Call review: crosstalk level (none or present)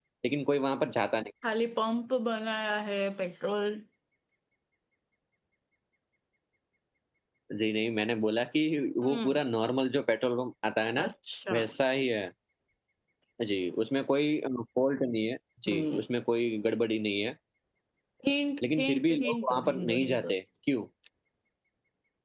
present